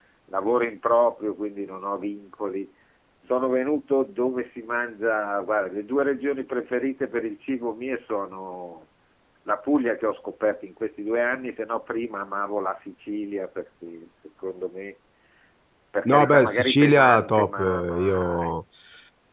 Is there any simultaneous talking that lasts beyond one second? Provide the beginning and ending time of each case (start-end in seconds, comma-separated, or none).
16.1-18.6